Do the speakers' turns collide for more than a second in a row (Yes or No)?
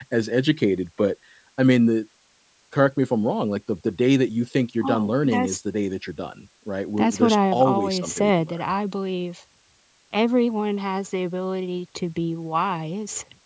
Yes